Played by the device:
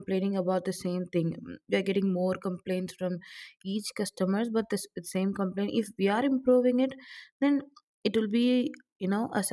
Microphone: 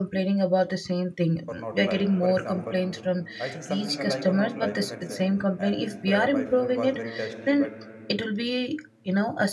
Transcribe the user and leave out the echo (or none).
or not like. For example, I think something I like or not like, you can say. And if uh, my food was very tasty, but